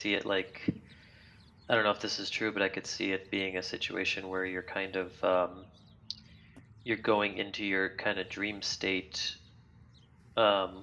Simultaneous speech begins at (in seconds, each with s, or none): none